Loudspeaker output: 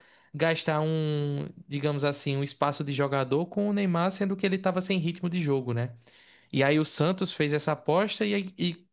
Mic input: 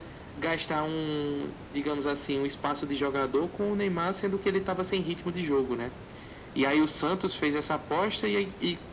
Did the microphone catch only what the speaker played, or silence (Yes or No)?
Yes